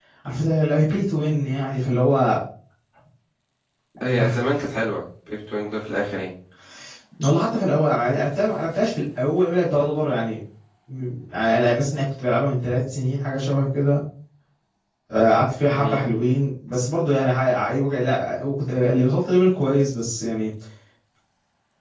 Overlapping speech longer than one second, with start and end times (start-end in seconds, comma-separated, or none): none